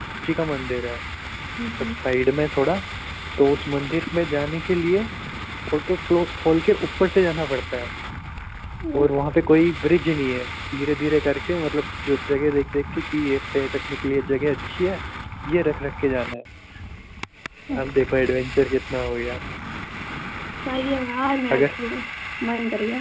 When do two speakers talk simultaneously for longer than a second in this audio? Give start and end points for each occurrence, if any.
none

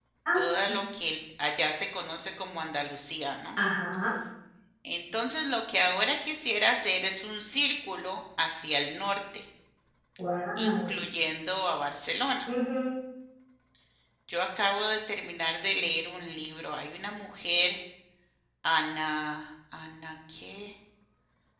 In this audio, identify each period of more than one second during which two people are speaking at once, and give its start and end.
none

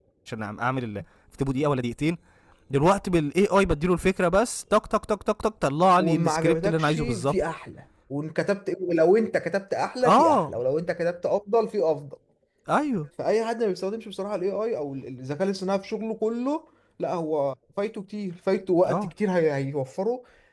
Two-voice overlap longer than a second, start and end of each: 6.0-7.4

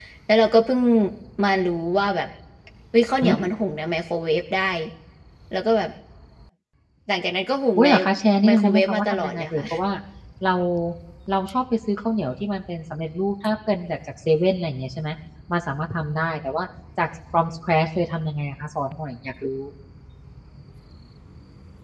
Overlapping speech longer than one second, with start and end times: 8.4-9.6

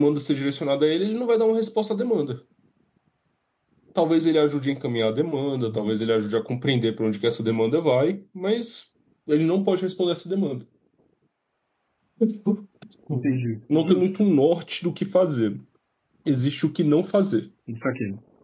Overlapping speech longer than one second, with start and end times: none

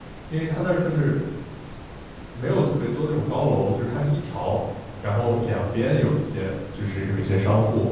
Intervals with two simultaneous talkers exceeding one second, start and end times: none

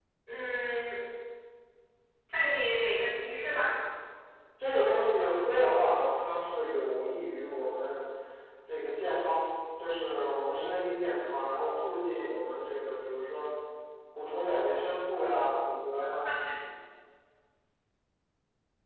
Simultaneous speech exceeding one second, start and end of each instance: none

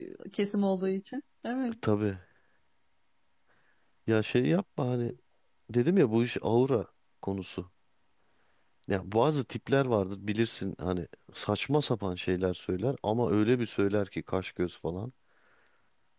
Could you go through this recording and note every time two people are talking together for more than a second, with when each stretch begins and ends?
none

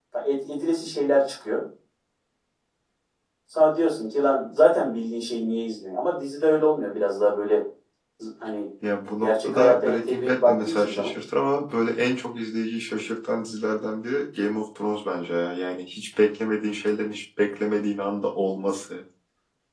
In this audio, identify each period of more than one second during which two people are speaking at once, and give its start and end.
9.2-11.1

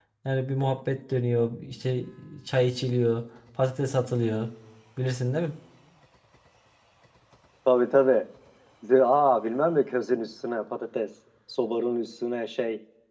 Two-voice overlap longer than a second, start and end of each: none

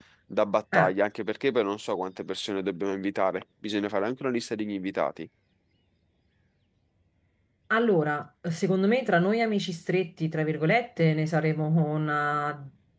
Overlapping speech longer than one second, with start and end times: none

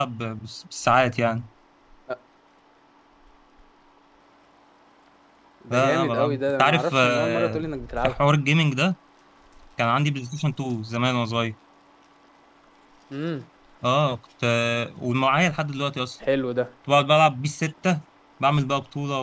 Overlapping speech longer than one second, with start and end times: 5.7-7.6

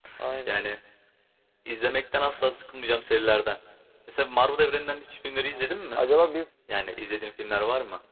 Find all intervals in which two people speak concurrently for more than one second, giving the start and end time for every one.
none

